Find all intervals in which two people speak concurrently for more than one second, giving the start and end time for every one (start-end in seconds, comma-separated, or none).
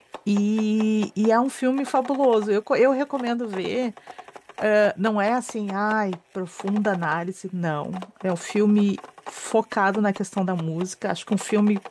none